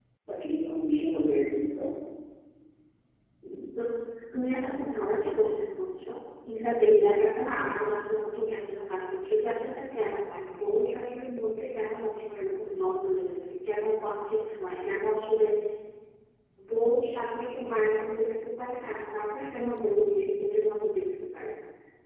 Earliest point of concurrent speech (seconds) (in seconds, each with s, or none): none